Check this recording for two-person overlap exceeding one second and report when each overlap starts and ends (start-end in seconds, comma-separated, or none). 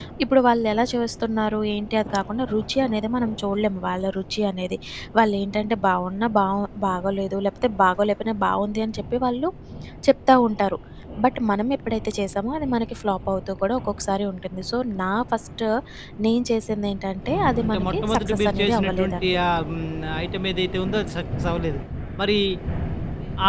17.4-19.4